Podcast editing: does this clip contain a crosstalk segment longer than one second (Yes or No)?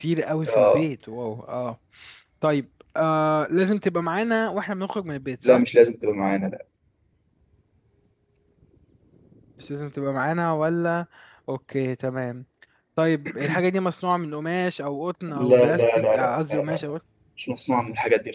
Yes